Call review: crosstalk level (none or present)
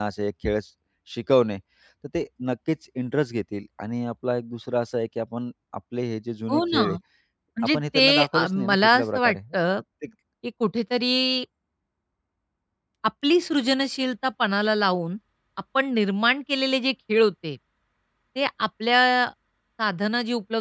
present